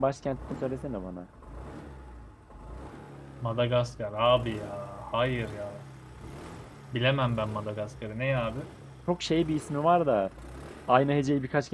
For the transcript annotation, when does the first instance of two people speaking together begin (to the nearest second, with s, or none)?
none